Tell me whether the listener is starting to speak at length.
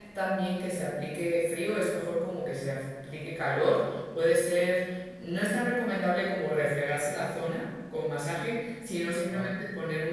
No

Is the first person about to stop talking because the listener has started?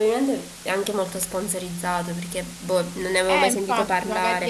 Yes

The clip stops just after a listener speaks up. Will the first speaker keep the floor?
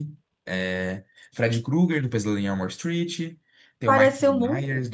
No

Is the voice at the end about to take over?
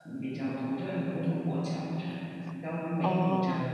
No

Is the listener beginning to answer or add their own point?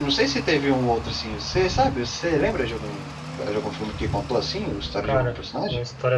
Yes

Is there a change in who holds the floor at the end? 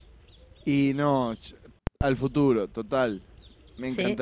No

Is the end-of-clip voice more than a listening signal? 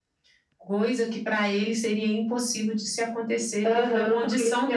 Yes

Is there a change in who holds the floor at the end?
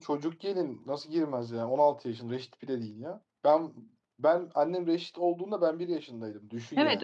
Yes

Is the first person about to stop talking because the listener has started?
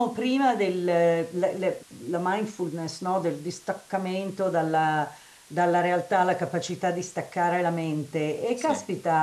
No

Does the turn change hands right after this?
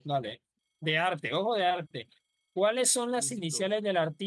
No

